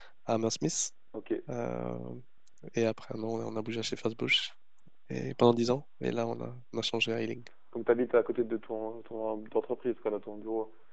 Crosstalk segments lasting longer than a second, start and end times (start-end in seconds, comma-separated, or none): none